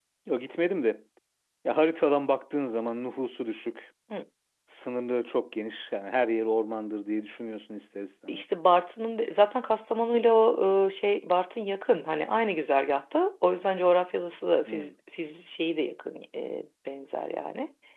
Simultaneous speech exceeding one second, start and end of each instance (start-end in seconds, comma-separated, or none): none